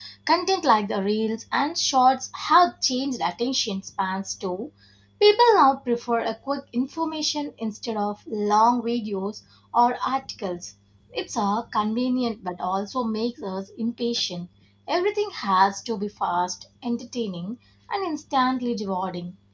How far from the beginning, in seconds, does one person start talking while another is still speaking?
none

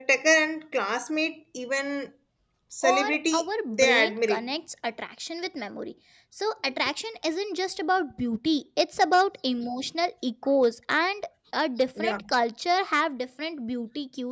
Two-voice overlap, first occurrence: 2.8 s

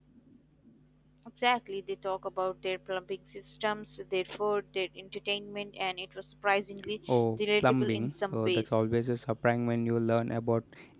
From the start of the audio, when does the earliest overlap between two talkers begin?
7.6 s

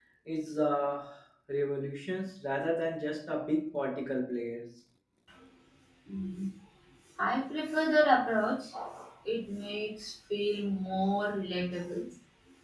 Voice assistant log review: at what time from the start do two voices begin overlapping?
none

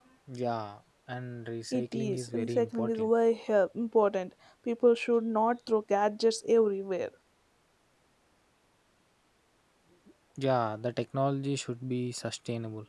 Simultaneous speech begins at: 1.7 s

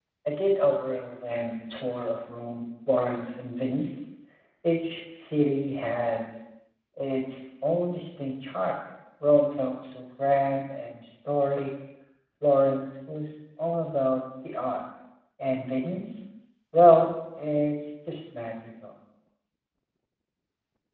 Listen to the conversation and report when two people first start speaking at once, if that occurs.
none

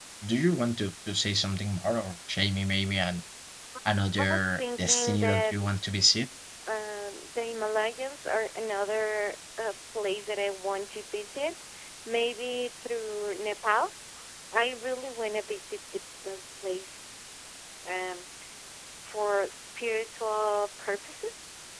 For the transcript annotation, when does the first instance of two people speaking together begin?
4.2 s

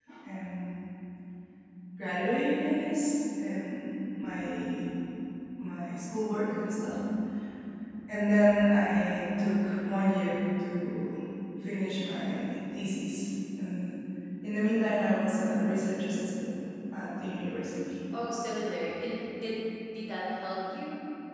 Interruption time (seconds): none

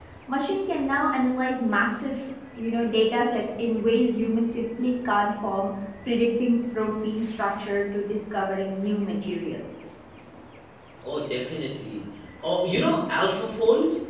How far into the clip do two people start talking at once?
none

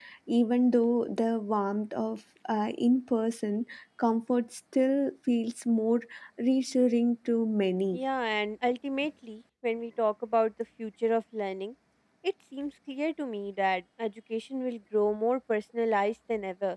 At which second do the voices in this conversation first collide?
none

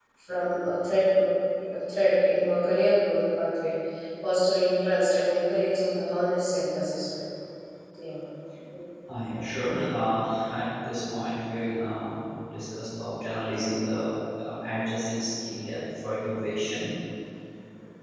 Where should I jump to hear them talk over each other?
none

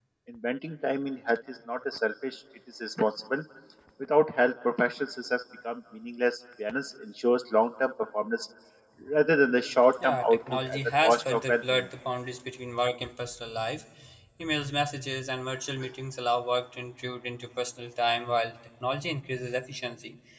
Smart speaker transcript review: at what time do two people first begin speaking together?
9.9 s

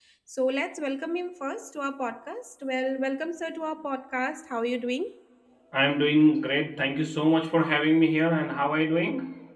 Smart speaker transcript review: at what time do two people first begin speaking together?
none

